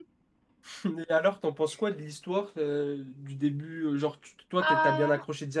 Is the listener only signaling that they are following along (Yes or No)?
Yes